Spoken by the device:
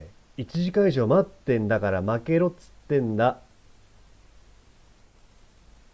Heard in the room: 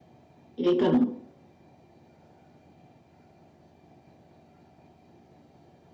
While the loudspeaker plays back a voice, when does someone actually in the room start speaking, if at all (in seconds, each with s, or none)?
0.6 s